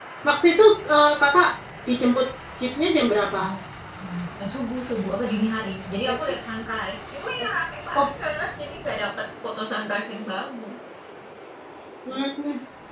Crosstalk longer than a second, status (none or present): none